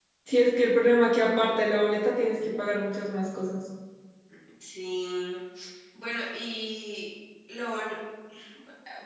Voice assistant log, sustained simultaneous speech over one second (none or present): none